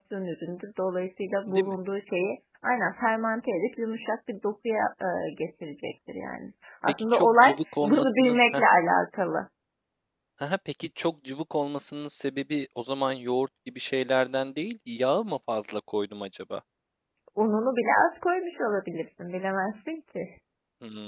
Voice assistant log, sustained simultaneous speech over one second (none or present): present